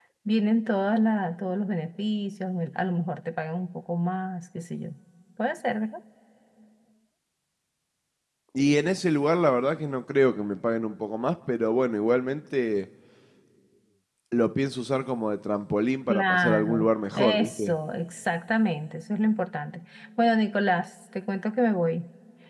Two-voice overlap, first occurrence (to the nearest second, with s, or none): 16 s